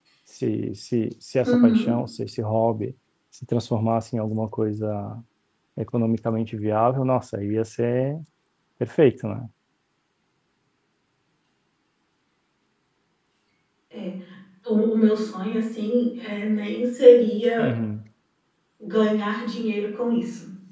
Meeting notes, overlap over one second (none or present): none